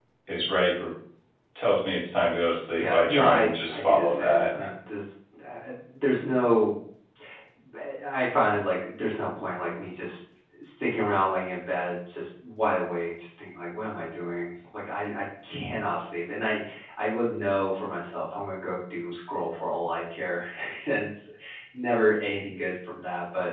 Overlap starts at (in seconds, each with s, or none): 2.7 s